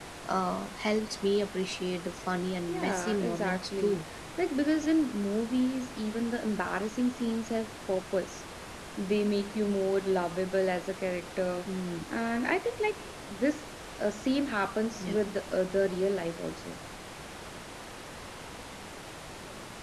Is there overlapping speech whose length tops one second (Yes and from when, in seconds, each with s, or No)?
Yes, from 2.7 s